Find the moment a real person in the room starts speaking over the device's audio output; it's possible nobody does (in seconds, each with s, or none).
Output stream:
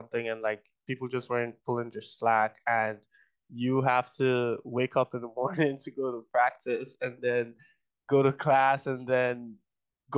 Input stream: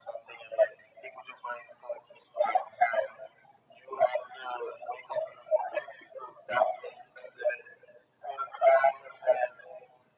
none